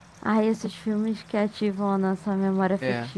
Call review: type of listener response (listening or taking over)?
taking over